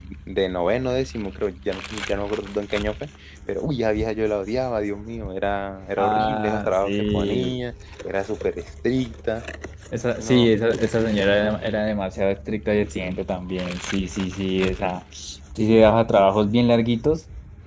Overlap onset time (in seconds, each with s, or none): 6.0 s